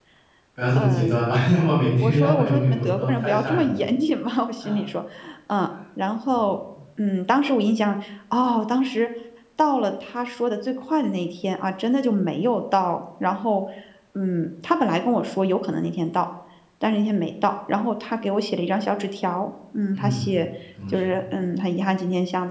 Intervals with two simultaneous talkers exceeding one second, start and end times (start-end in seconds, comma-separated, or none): 2.0-3.8